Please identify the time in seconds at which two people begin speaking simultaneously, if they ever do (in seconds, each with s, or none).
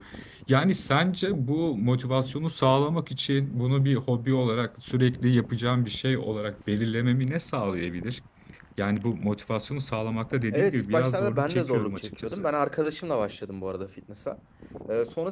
10.5 s